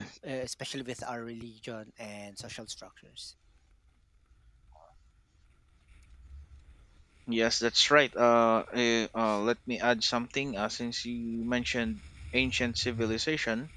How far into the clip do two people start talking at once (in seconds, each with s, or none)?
none